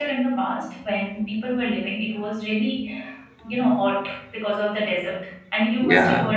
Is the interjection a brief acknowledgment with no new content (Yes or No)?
Yes